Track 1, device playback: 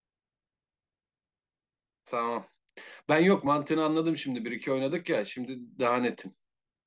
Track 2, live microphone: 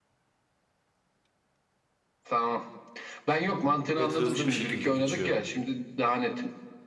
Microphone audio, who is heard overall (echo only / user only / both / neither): both